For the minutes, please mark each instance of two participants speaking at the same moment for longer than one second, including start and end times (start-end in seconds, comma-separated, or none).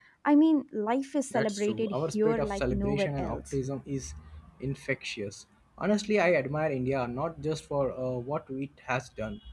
1.3-3.5